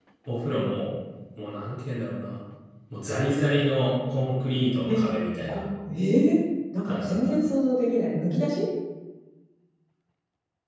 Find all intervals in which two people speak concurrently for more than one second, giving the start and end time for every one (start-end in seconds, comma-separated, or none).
none